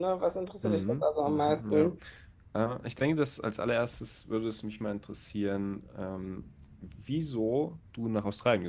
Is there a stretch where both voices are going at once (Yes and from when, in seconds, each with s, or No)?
Yes, from 0.6 s